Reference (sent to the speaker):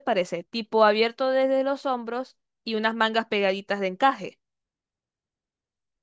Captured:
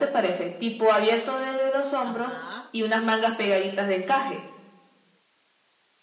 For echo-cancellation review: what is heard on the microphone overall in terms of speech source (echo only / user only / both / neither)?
both